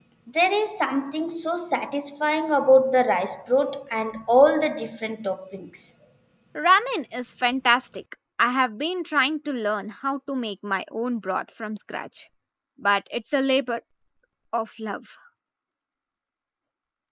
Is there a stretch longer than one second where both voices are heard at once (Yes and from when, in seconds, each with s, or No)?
No